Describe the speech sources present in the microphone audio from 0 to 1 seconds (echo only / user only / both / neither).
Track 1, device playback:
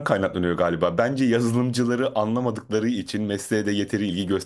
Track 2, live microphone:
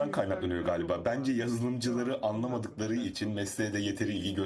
both